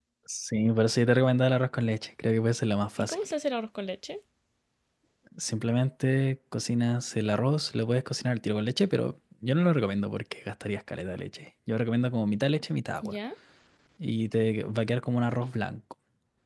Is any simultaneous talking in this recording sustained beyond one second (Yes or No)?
No